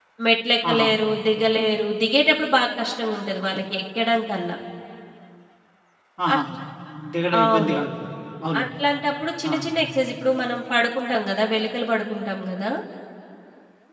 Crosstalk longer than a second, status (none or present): none